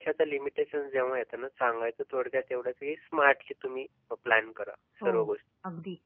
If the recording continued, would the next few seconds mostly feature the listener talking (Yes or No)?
Yes